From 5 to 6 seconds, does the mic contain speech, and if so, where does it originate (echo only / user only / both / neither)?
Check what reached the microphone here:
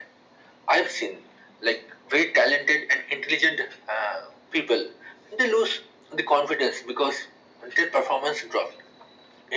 echo only